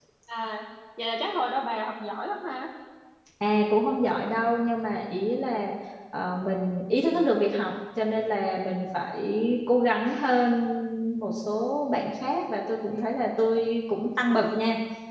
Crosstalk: none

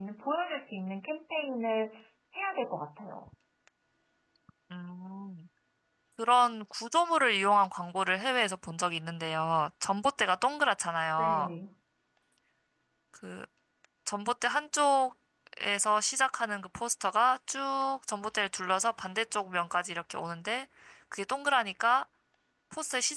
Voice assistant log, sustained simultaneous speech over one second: none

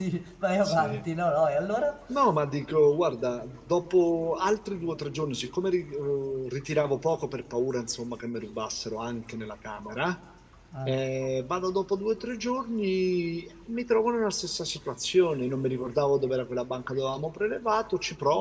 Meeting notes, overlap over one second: none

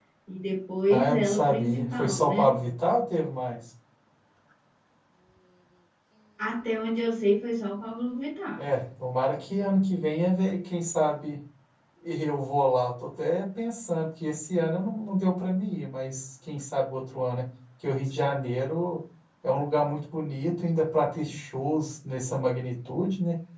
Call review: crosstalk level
present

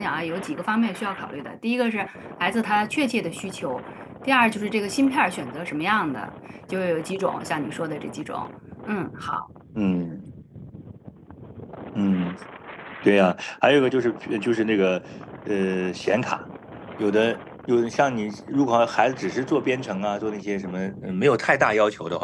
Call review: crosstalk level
none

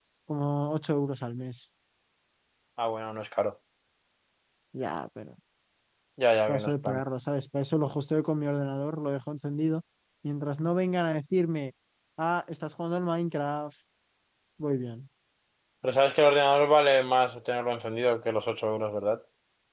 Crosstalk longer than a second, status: none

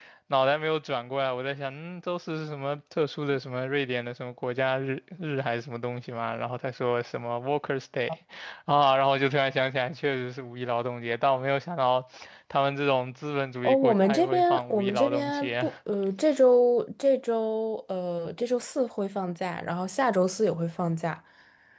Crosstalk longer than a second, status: present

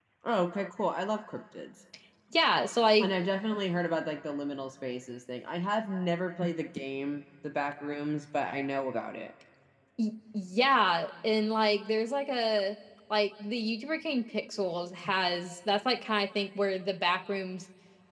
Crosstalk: none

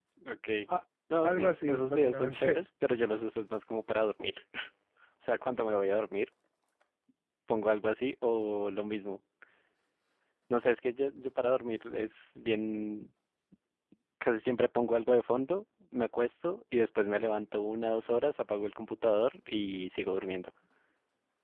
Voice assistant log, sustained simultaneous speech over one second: present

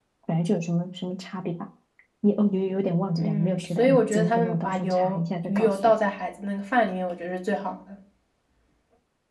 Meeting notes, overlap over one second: present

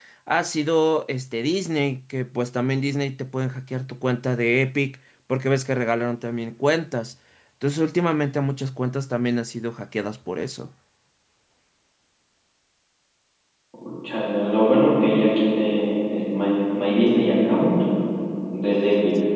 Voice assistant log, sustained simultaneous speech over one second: none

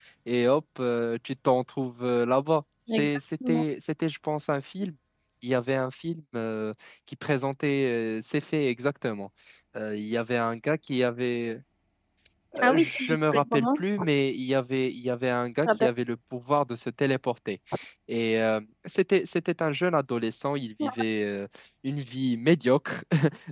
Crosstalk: present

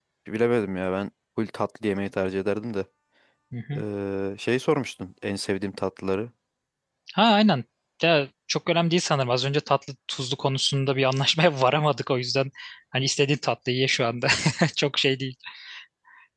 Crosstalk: none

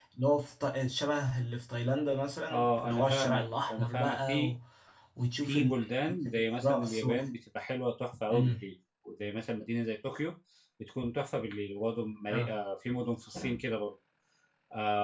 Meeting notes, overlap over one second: present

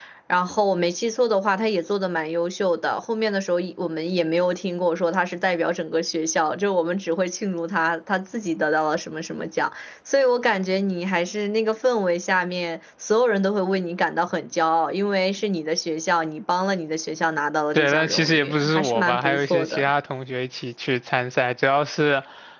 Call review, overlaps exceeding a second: present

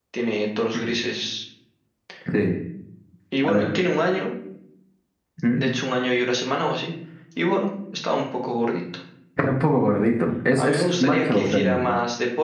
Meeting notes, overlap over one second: present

